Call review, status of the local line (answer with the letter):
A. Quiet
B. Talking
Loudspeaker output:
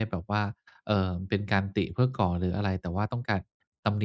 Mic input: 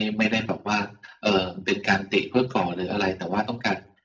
A